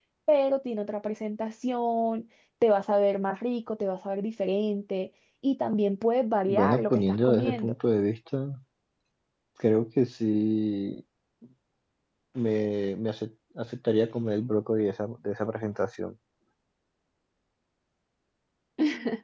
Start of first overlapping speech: 6.5 s

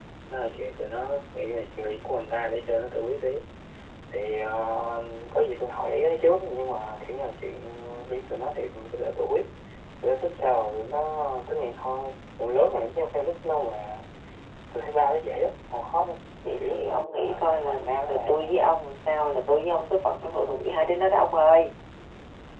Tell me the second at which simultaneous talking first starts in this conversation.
16.4 s

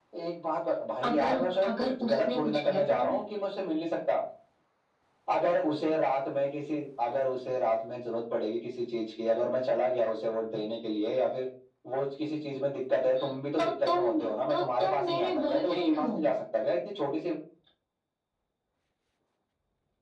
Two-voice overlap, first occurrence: 1.0 s

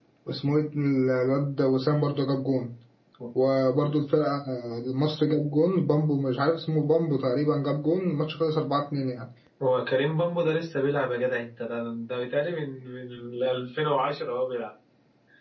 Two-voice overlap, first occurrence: none

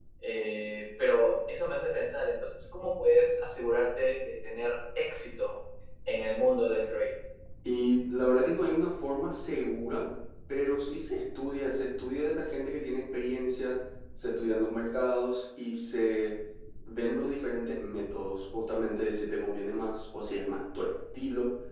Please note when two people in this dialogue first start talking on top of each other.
none

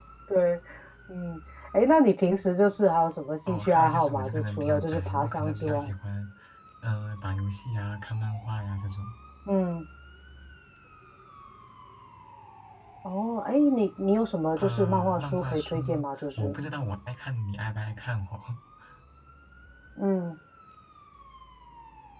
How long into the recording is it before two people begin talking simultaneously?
3.5 s

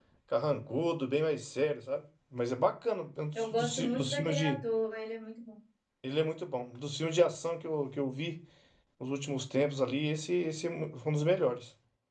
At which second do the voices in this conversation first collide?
3.4 s

